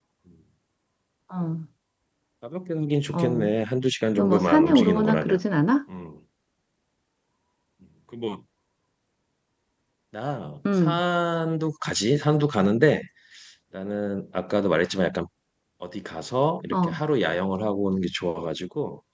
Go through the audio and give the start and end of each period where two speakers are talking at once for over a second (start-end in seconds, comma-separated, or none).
4.2-5.4